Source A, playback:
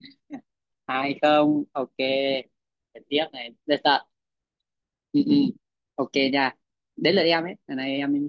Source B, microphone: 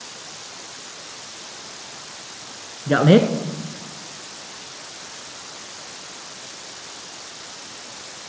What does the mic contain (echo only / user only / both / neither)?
user only